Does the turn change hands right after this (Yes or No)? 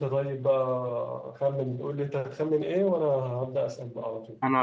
No